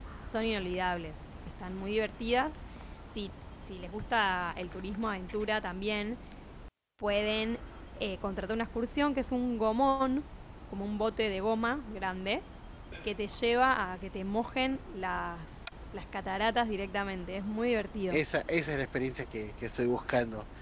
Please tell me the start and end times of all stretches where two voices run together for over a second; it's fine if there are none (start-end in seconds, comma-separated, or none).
none